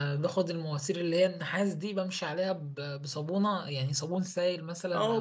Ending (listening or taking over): taking over